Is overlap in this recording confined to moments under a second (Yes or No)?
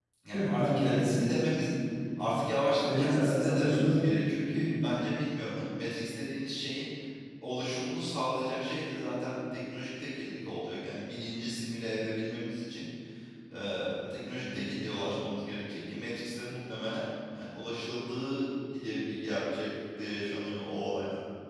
No